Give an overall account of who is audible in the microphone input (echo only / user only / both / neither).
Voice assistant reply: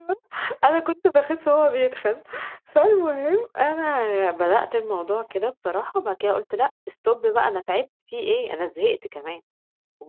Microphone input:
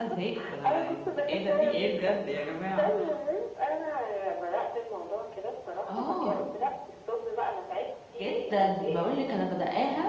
both